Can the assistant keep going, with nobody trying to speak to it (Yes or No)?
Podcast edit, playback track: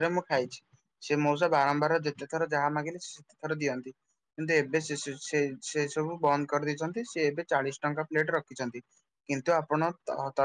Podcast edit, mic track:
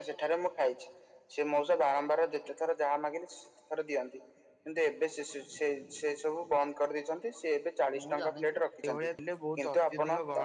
No